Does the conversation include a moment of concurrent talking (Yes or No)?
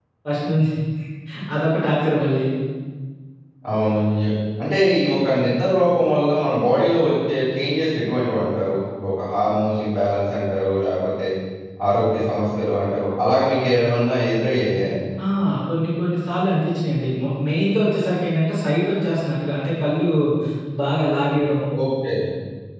No